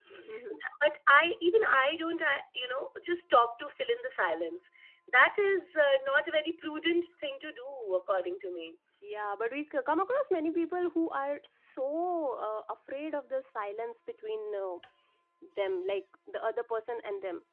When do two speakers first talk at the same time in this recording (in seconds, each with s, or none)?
none